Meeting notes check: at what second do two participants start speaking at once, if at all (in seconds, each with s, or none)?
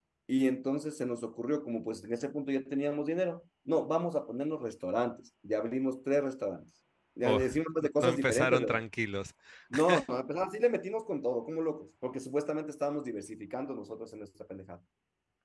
7.2 s